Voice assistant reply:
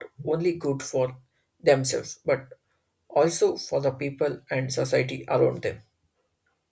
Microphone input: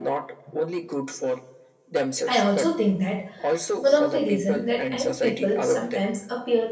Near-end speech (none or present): present